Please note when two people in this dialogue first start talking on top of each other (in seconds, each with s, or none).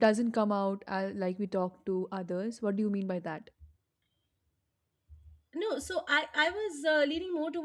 none